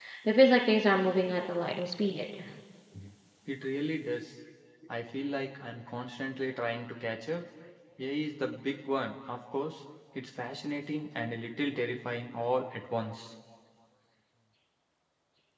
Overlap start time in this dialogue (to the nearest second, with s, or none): none